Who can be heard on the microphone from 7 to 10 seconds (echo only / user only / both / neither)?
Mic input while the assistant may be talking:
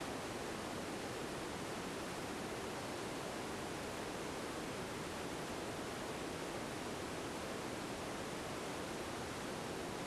neither